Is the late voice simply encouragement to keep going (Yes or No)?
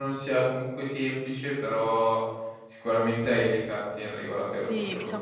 No